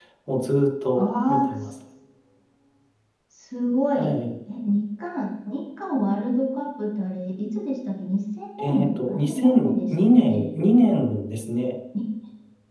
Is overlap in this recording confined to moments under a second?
No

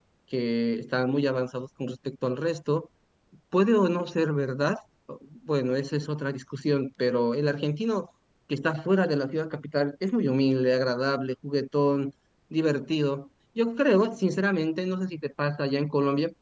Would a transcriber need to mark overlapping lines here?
No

